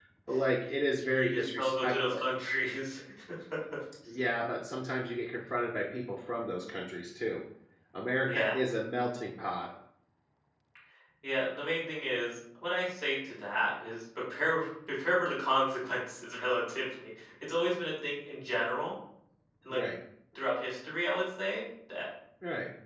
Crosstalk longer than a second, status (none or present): present